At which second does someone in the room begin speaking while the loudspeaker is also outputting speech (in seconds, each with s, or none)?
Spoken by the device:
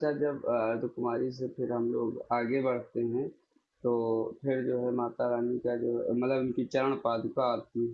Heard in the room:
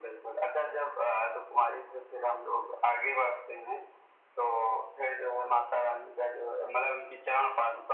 none